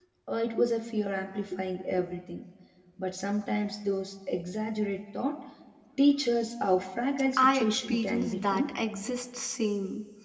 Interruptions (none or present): present